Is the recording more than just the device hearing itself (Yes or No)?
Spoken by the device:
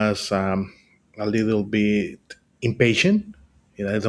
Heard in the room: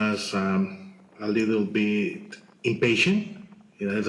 No